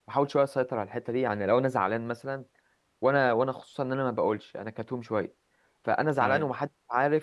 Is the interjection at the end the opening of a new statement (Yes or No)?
No